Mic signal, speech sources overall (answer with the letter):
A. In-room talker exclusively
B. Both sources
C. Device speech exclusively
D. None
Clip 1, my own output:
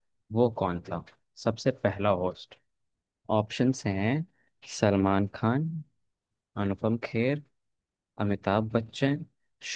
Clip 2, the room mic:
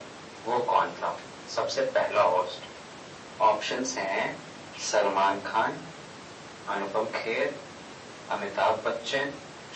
C